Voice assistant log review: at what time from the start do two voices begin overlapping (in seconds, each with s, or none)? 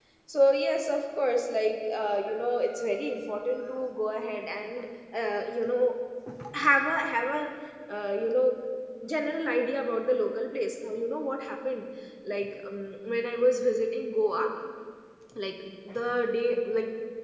none